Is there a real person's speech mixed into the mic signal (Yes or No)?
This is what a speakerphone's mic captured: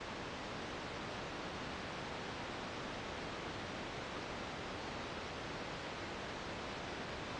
No